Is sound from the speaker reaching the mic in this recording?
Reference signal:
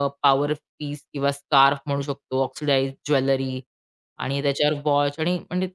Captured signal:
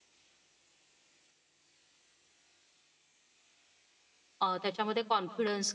No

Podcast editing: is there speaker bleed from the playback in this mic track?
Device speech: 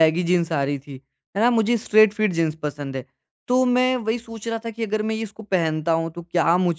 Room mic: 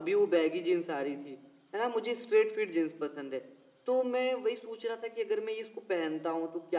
Yes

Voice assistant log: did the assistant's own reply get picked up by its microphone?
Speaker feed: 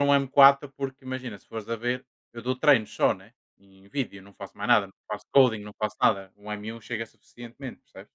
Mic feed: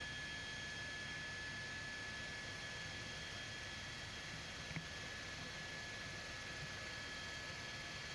No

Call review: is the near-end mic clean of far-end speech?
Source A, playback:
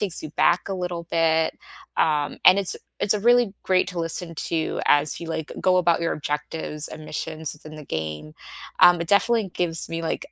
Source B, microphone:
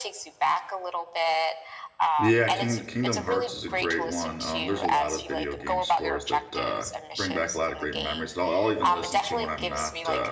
No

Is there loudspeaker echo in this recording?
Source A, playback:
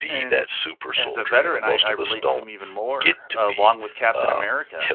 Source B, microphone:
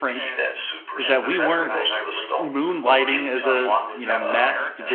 Yes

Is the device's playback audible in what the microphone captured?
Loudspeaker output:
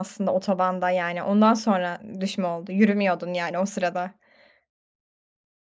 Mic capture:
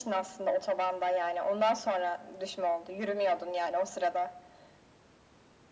Yes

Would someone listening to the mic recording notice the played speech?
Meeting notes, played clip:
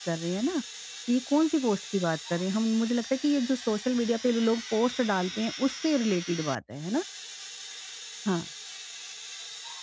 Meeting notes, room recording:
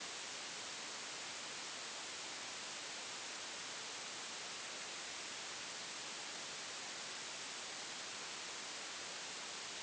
No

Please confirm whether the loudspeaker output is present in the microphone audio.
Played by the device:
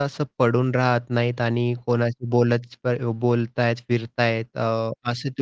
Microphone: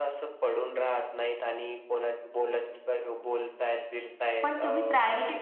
Yes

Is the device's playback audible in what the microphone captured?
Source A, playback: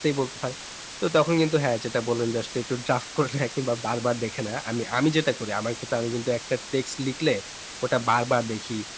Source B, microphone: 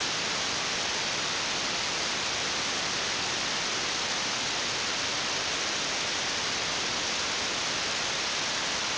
No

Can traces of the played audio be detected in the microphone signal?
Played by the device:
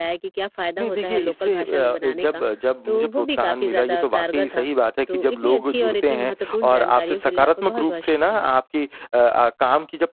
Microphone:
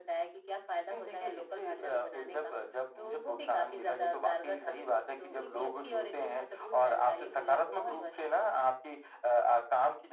Yes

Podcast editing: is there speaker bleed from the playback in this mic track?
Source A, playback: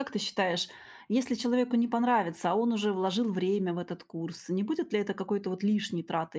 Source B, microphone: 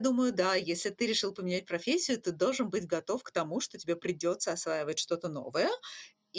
No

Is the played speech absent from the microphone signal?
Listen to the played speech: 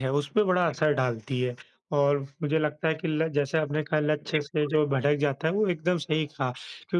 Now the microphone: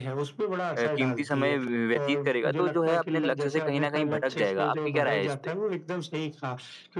No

